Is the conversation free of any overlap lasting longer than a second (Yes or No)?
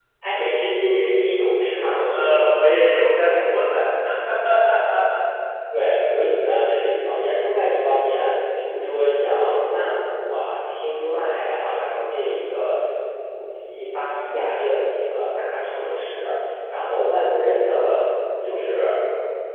Yes